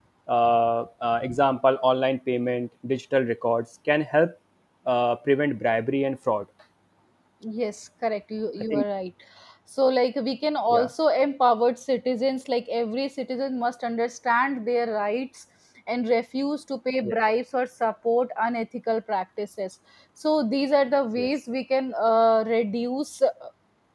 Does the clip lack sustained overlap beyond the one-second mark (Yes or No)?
Yes